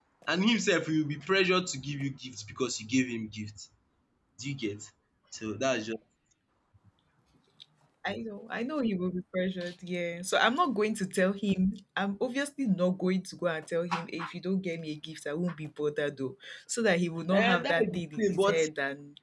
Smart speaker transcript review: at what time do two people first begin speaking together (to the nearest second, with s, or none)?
17 s